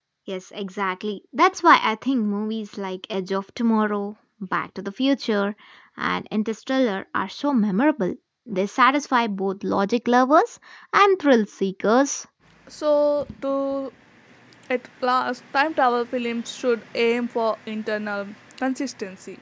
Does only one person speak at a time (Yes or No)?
Yes